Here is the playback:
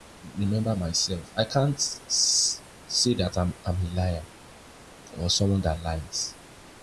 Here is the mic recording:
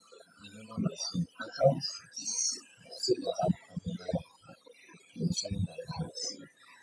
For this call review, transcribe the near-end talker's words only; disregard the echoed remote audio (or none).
none